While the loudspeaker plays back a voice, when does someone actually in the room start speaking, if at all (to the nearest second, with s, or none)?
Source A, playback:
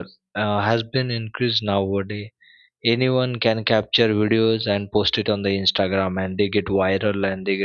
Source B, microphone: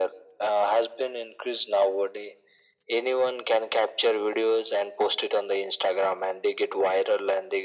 none